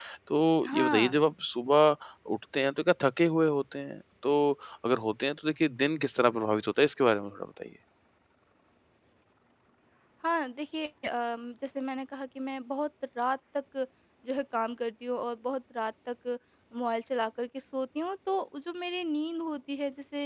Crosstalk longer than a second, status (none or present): none